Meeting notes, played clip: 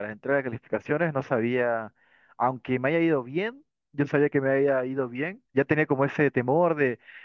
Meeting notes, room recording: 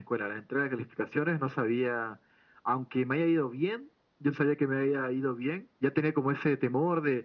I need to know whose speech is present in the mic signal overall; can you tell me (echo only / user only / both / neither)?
echo only